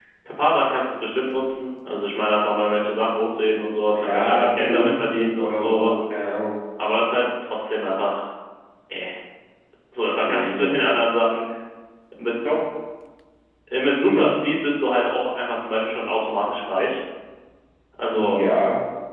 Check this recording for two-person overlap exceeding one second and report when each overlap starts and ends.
4.0-5.9

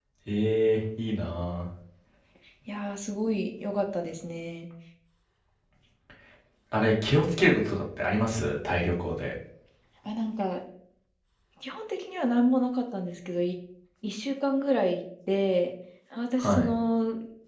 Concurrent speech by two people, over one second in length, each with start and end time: none

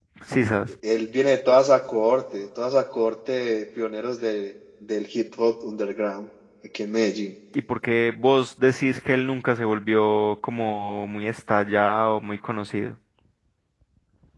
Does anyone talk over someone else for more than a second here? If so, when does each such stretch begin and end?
none

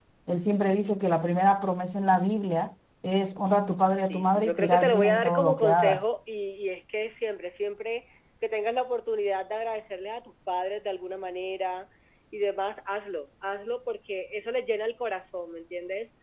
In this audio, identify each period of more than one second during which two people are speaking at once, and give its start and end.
4.1-6.0

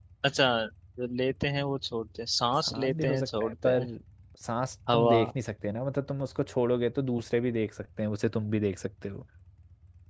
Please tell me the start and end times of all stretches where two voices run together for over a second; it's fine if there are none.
2.7-3.9

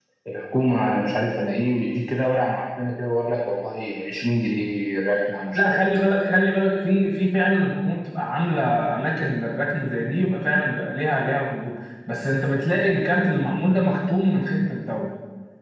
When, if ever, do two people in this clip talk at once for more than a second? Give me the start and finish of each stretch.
none

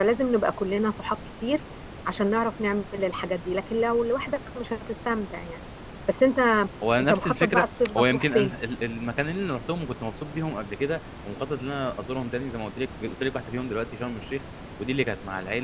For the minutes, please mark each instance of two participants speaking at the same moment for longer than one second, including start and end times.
7.0-8.5

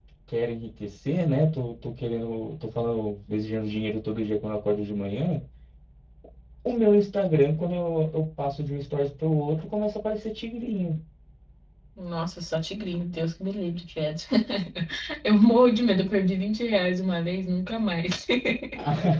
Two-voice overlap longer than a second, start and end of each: none

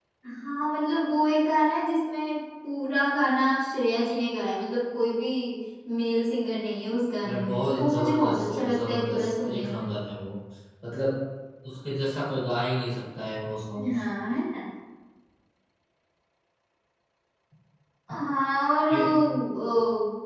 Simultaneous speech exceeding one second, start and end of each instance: 7.2-9.9

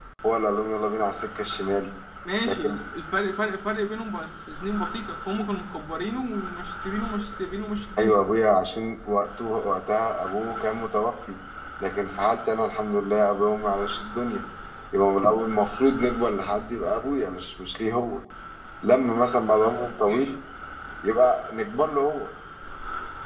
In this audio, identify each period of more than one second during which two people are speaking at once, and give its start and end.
none

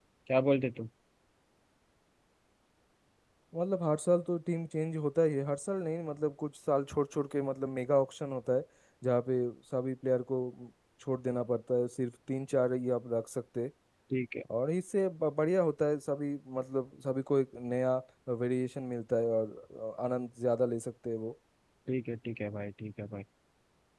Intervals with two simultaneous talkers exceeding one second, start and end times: none

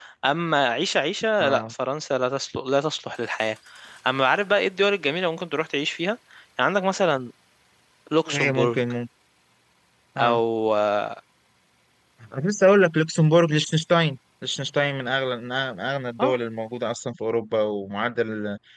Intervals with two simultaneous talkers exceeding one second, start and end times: none

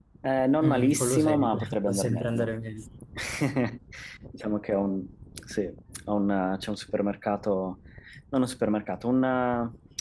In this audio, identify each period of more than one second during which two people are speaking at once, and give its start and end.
0.6-2.5

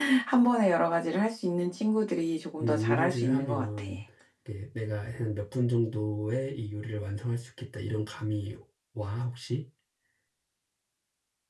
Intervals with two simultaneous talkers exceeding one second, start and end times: 2.6-3.8

